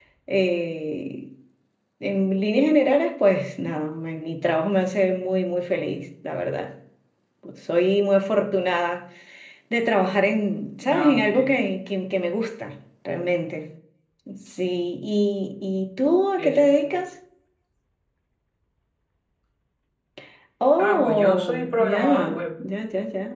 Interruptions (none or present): present